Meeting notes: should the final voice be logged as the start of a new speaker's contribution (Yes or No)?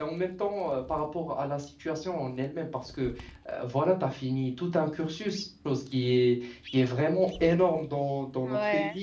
No